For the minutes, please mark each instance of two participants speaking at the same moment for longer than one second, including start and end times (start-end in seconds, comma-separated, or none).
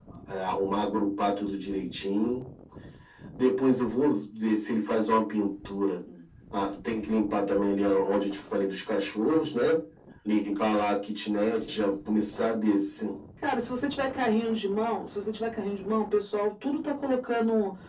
none